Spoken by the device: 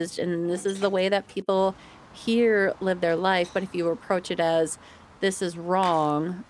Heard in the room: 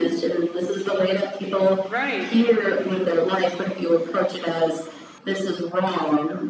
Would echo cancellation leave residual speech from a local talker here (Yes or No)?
Yes